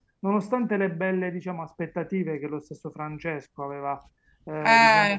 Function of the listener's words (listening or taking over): listening